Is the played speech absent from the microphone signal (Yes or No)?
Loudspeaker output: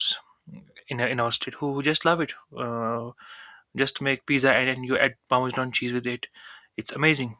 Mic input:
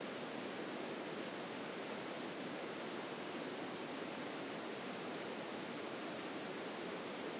Yes